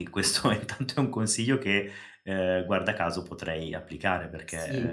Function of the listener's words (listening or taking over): listening